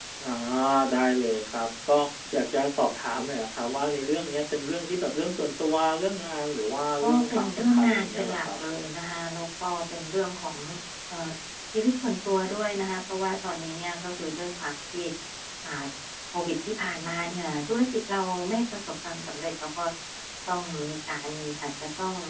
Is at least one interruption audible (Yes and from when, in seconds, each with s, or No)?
Yes, from 7.0 s